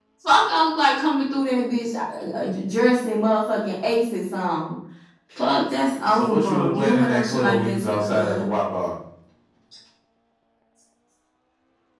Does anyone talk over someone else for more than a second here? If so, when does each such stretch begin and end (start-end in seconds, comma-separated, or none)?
6.1-8.5